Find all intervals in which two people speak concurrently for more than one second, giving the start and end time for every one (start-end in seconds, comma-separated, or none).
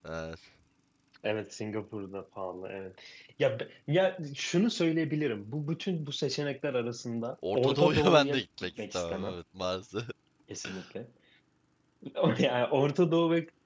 7.5-9.4